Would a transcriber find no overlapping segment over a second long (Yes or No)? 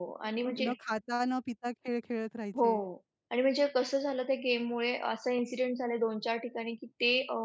Yes